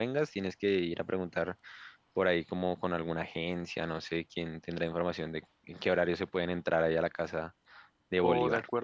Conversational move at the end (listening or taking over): taking over